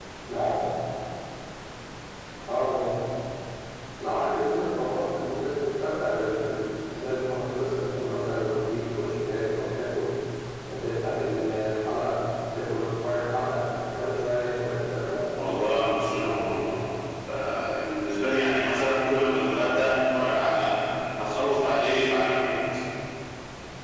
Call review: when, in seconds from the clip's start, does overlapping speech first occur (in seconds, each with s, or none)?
15.3 s